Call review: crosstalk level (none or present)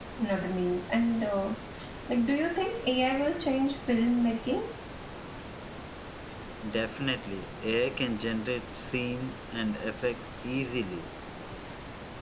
none